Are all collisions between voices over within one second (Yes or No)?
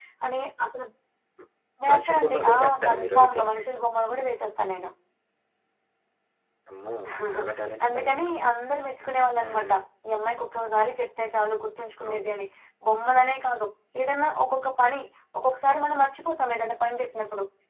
No